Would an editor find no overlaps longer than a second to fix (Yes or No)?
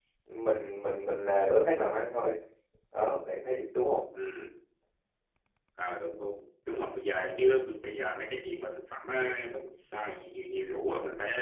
Yes